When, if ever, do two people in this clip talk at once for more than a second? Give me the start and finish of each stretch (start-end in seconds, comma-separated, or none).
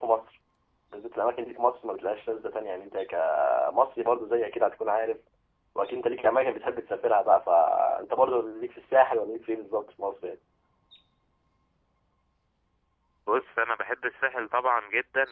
none